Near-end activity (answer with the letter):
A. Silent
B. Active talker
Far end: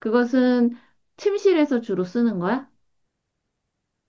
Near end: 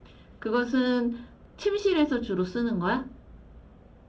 A